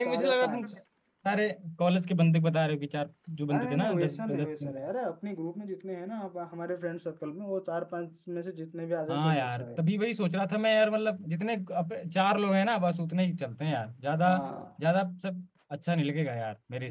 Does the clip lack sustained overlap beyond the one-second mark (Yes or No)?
No